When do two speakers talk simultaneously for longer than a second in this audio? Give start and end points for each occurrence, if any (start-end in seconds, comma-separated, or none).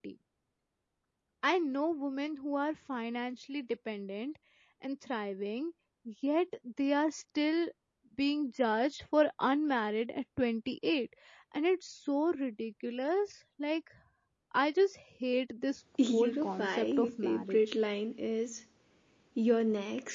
16.1-17.6